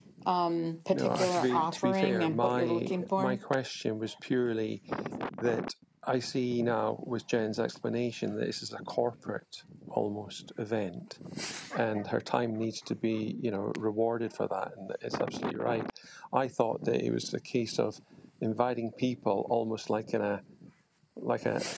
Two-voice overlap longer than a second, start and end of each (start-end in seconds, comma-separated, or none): 0.9-3.4